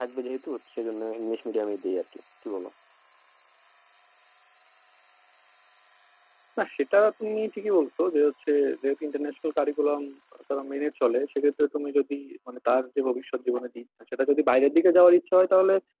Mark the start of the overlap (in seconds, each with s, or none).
none